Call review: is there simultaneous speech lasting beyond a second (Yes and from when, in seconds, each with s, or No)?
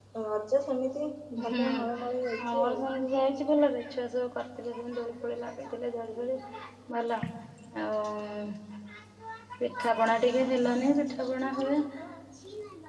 Yes, from 1.5 s